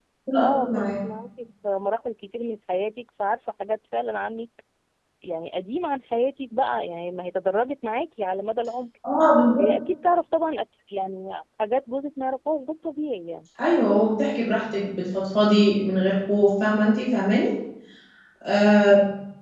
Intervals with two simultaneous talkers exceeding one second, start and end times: none

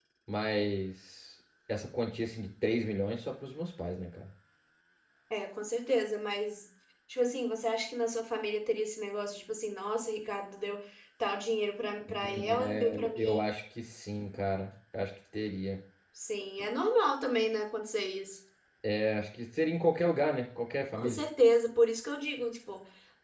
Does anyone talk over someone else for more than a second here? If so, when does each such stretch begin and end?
12.1-13.4

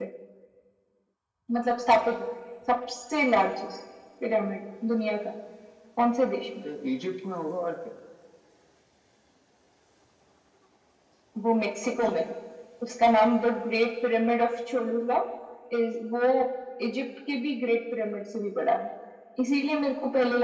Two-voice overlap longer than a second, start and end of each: none

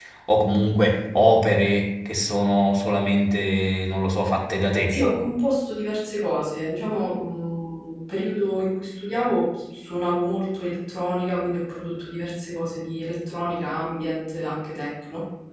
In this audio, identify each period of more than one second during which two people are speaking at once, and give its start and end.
none

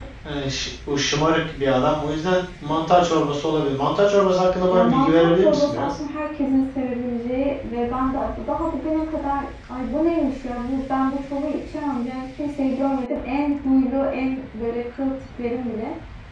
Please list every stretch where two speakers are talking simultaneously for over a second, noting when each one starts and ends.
4.7-6.0

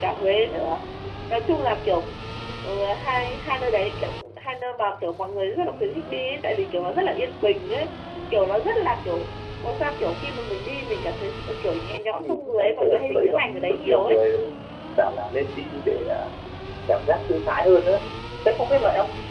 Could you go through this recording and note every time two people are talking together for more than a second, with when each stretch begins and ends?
12.2-14.2

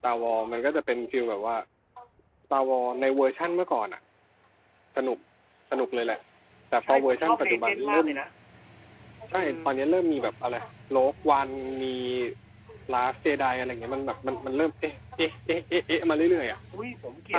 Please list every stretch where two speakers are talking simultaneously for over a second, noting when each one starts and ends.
6.8-8.1

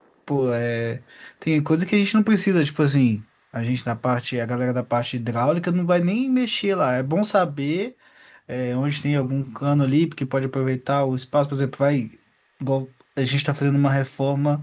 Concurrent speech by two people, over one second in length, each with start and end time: none

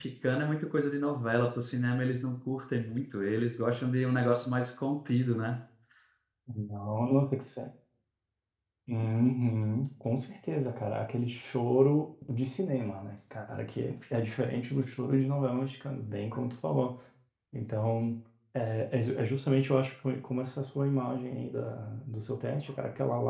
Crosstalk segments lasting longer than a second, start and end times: none

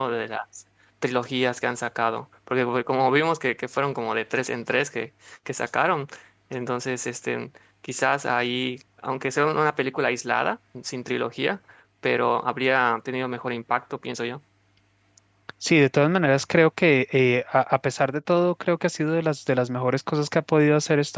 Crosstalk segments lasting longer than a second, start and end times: none

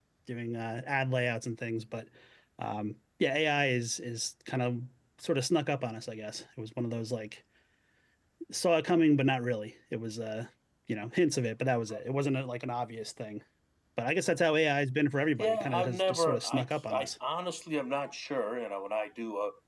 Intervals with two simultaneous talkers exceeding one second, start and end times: 15.4-17.1

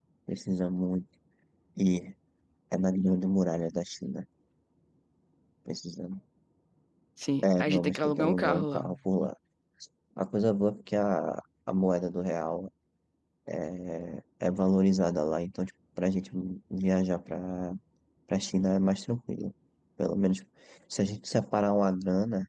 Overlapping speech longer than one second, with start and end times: 7.4-8.8

